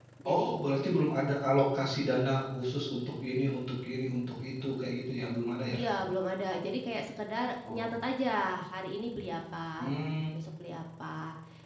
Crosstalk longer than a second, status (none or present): none